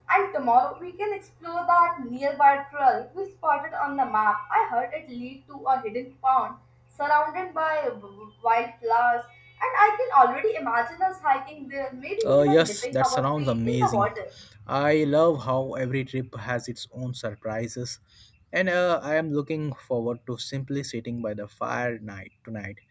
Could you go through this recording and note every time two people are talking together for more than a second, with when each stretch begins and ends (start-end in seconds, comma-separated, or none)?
12.2-14.1